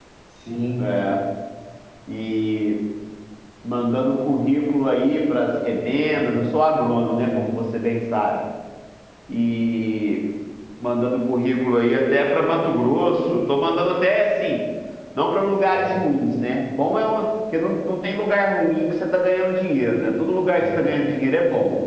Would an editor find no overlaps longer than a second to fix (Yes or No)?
Yes